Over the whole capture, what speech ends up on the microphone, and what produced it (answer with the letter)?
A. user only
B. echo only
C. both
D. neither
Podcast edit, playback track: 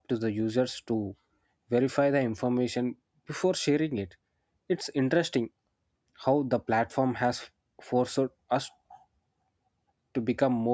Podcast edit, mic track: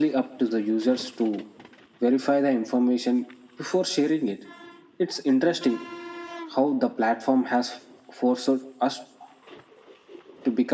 B